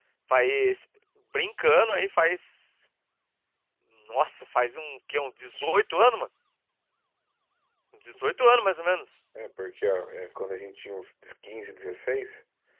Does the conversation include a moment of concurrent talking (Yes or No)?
No